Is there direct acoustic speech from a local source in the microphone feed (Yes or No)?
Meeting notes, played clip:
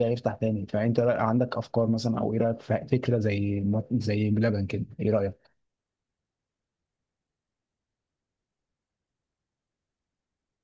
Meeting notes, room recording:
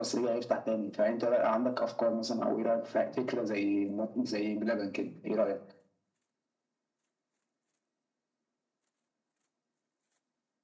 No